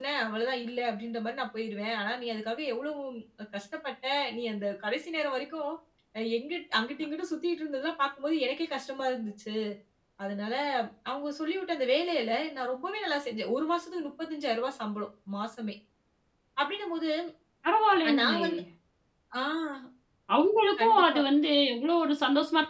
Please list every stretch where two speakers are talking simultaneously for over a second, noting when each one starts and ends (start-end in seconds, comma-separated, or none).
none